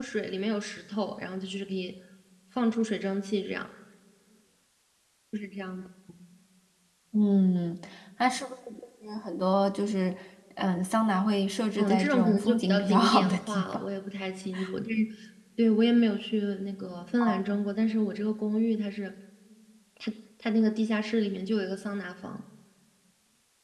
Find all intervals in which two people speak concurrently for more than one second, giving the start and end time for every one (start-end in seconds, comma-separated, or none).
11.8-13.8